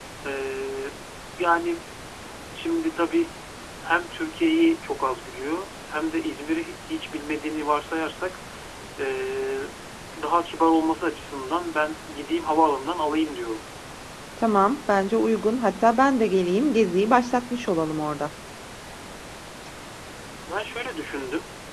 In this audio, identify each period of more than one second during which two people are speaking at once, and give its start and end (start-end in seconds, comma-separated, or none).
none